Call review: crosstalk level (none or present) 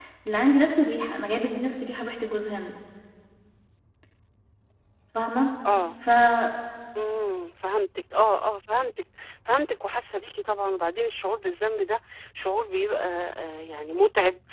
none